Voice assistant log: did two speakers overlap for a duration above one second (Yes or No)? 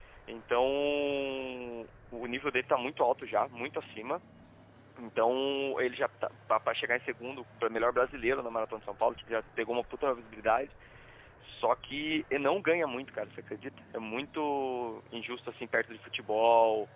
No